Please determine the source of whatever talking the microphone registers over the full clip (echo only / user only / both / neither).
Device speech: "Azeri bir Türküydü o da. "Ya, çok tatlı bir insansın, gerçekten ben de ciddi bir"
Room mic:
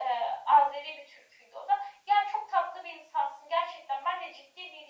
echo only